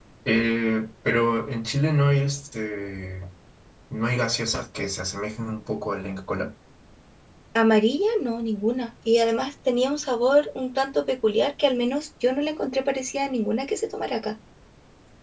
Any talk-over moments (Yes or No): No